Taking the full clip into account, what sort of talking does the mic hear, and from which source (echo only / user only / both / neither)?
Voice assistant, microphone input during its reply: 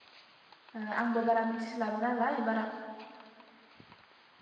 user only